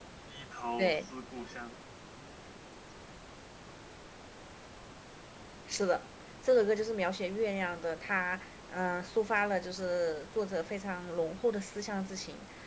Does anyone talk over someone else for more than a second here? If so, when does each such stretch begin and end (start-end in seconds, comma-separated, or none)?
none